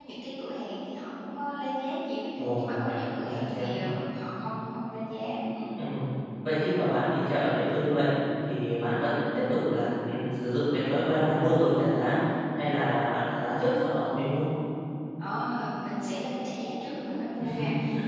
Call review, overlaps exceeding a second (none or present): present